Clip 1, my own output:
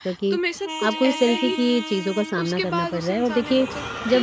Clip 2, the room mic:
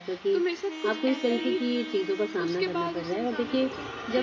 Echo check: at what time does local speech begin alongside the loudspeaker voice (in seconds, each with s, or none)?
none